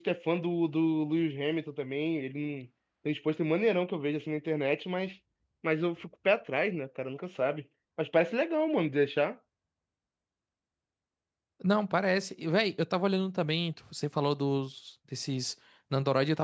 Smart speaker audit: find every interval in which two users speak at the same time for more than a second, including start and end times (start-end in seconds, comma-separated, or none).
none